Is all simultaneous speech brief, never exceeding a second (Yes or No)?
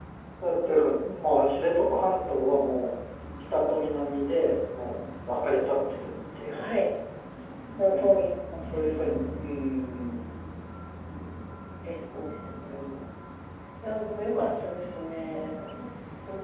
Yes